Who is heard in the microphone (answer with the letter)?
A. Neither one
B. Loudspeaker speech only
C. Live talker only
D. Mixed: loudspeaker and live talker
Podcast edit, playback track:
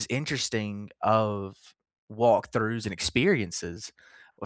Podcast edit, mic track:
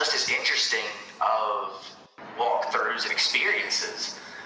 B